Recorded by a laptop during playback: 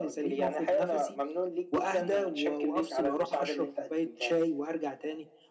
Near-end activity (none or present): present